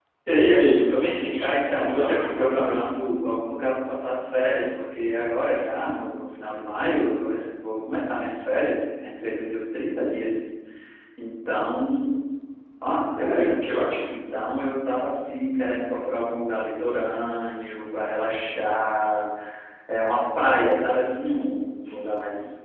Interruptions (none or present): present